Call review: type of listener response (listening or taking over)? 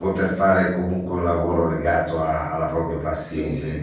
taking over